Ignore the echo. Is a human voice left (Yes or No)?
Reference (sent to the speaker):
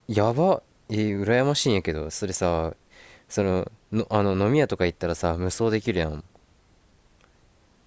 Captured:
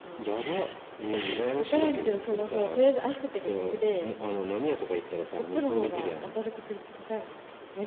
Yes